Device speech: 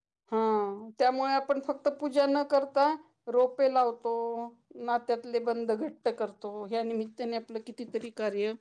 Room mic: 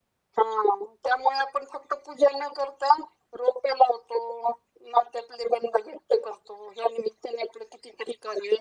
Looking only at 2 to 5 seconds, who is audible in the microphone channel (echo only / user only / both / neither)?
echo only